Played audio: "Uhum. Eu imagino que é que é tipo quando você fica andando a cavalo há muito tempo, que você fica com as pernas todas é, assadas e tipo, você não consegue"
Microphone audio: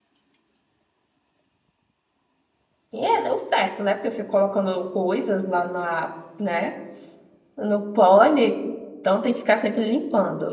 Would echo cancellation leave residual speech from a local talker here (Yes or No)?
Yes